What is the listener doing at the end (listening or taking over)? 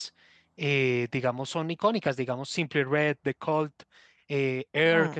listening